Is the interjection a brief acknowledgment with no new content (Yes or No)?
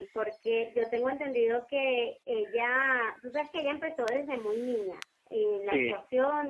Yes